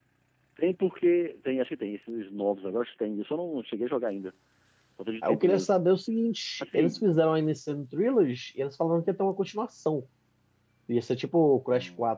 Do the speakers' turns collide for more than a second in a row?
No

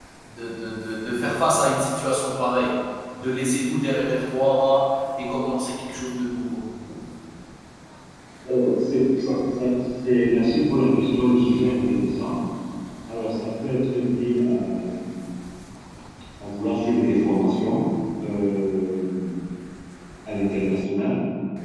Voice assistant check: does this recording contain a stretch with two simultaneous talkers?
No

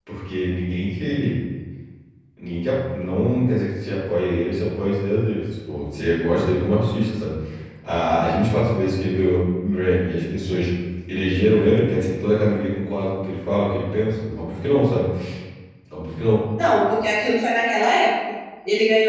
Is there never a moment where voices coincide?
Yes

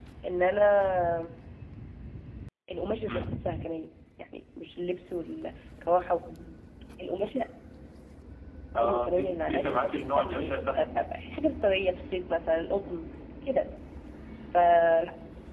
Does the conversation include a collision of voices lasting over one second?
Yes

